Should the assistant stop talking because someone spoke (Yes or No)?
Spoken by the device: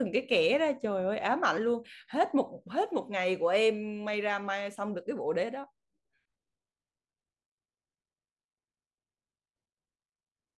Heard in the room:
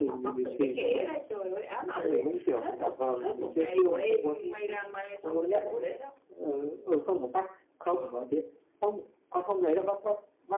Yes